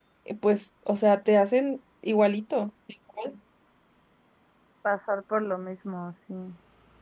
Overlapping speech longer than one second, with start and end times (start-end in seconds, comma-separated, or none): none